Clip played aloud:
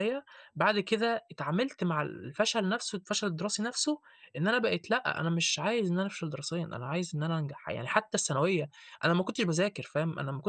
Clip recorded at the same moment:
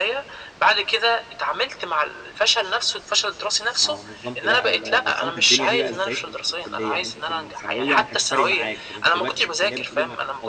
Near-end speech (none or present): present